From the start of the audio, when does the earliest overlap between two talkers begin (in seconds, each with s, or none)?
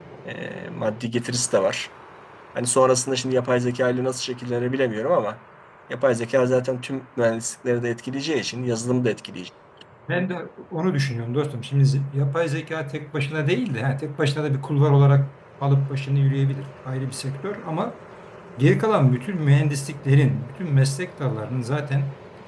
none